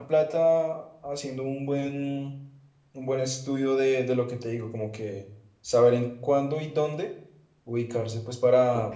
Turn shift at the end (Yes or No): Yes